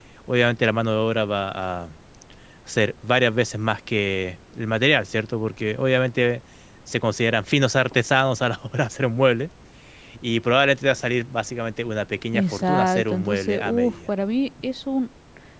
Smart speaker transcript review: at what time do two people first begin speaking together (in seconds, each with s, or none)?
12.3 s